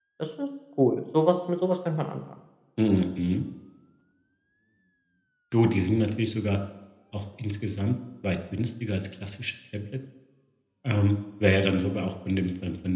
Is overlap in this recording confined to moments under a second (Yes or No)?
Yes